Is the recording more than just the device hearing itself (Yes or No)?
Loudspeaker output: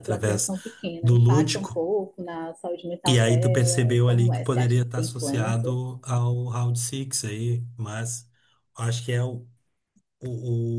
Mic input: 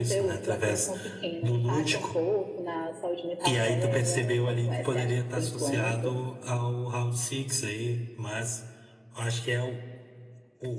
No